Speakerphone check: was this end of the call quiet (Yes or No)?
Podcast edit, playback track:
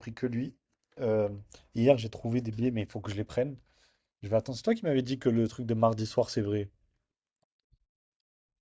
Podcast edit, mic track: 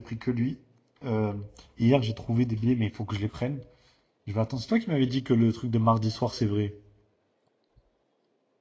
Yes